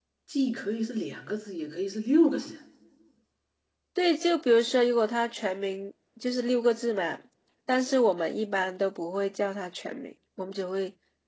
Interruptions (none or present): none